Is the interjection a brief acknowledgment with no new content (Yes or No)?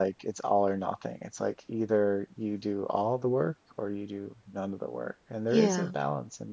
Yes